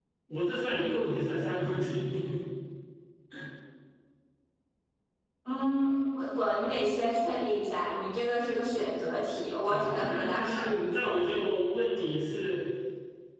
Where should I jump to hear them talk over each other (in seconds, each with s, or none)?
9.6 s